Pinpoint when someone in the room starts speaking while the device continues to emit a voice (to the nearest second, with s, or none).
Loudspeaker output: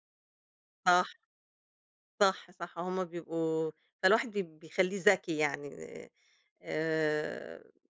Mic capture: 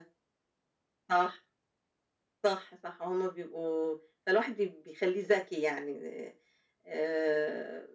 none